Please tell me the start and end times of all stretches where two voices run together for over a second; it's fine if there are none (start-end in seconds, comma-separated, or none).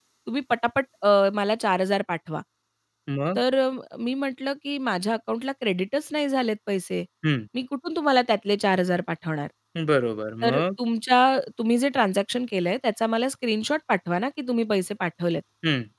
none